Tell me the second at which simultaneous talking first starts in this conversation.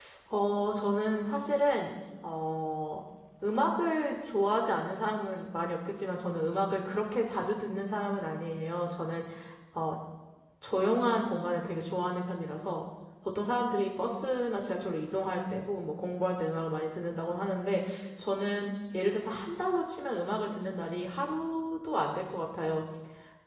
none

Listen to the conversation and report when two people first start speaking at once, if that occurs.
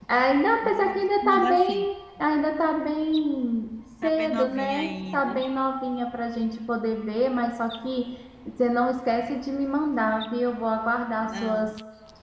0.6 s

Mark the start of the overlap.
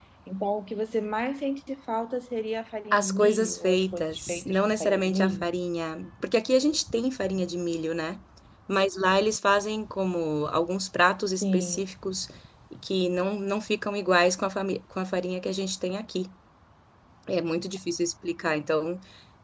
2.9 s

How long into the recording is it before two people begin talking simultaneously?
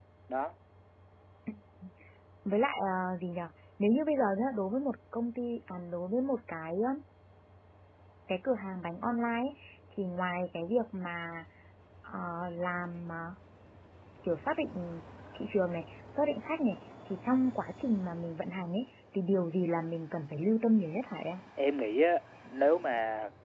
none

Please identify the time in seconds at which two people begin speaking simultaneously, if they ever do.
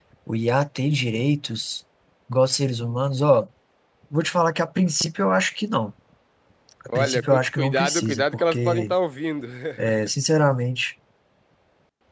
7.0 s

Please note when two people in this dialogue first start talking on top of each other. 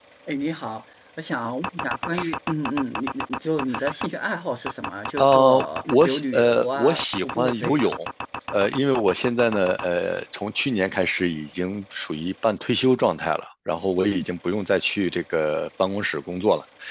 5.2 s

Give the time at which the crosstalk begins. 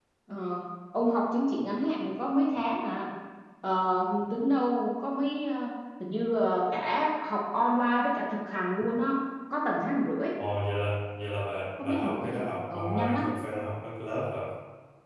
11.8 s

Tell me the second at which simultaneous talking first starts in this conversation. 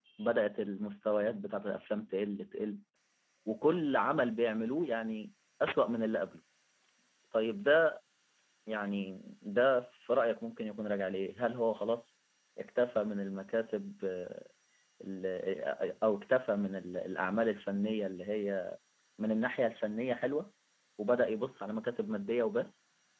none

